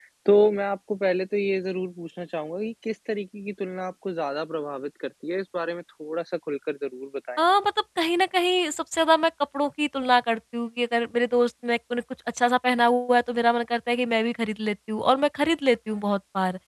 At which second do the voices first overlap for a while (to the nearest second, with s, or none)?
none